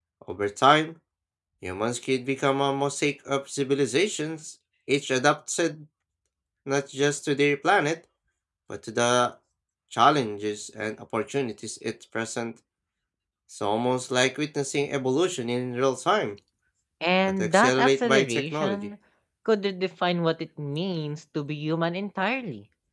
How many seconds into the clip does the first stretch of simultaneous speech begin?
17 s

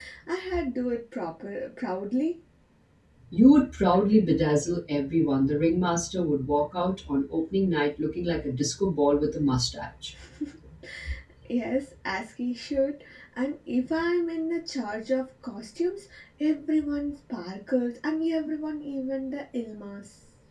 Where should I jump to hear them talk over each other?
none

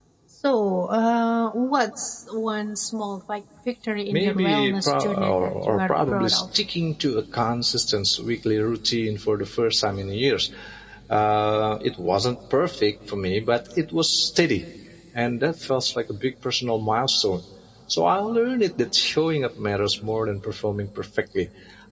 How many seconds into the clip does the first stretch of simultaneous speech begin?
4 s

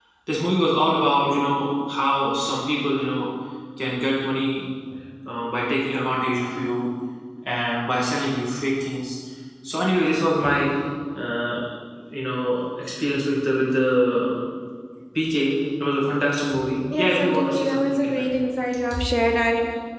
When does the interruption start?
17 s

